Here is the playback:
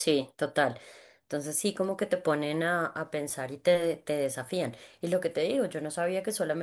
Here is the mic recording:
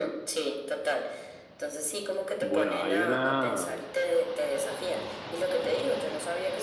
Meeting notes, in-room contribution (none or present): present